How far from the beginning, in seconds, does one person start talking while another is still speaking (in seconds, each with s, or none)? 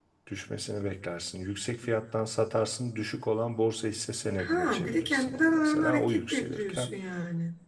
4.4 s